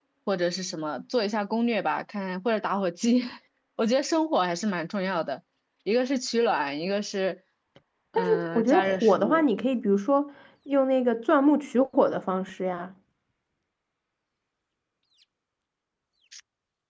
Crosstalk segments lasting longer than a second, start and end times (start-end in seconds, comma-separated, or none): 8.2-9.4